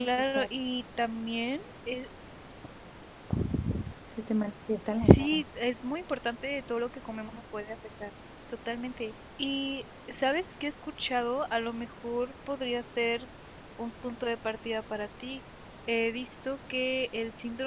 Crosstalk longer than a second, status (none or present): none